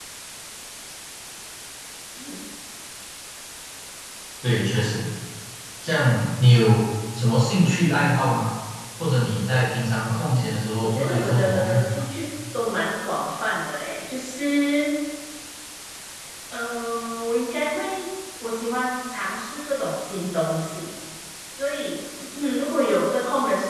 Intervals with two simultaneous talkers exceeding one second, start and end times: 10.8-12.0

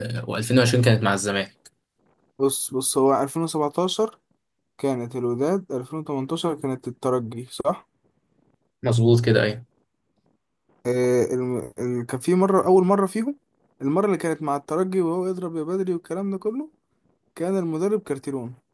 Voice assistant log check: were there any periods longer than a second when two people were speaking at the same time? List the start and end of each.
none

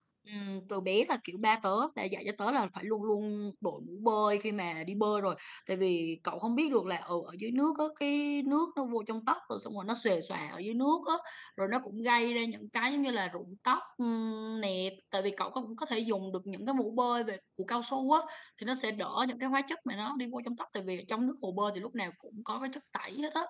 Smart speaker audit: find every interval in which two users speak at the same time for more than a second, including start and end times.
none

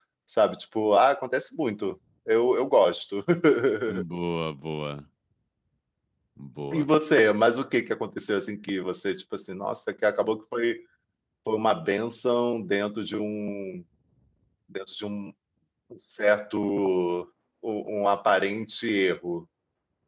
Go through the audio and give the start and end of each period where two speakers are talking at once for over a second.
none

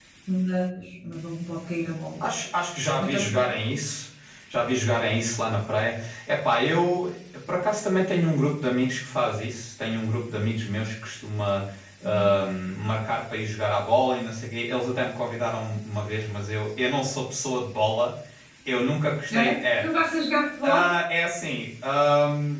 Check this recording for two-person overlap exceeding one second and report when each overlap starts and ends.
none

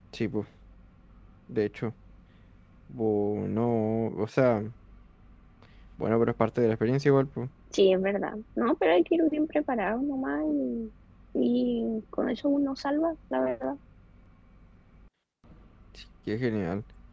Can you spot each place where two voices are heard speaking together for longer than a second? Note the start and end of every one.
none

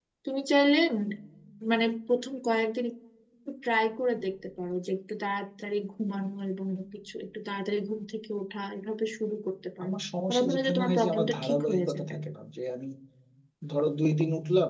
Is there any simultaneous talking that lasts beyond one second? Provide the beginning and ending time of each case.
10.3-12.1

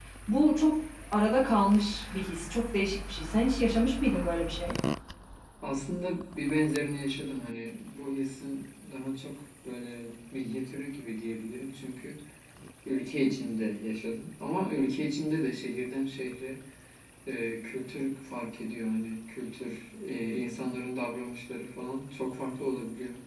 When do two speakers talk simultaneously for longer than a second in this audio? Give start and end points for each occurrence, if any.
none

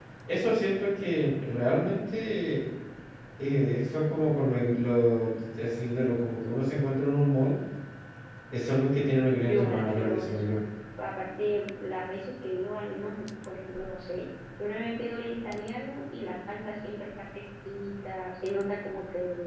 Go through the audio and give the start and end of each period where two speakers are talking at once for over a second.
9.3-10.6

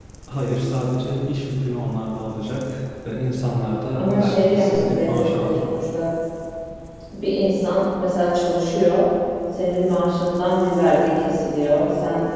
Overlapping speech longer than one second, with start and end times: 4.0-5.5

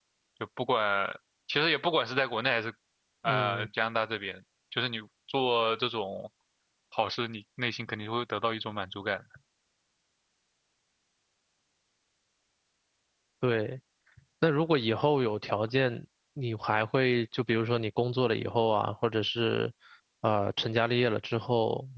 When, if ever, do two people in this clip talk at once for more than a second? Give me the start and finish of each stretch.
none

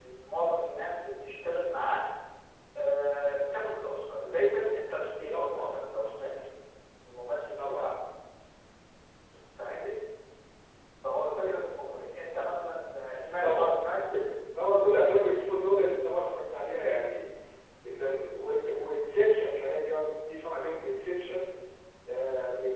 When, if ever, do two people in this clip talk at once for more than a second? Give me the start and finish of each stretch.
none

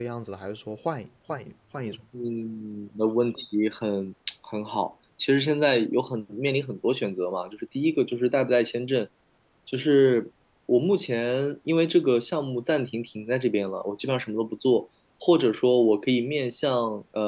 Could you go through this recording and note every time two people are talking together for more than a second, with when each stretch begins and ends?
none

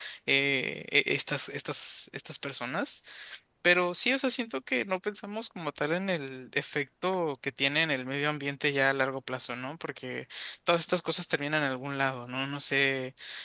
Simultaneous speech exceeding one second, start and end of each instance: none

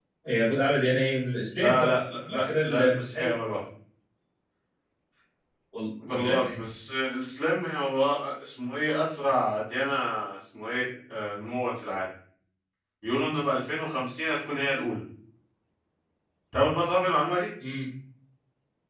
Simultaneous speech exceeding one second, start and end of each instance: 1.6-3.3

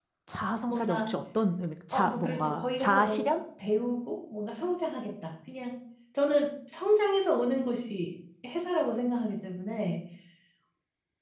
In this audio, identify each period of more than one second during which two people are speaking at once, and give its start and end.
1.9-3.4

